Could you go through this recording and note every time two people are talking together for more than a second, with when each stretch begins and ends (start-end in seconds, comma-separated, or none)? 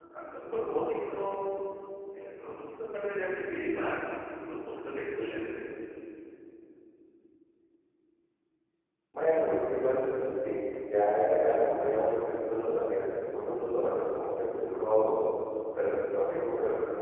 none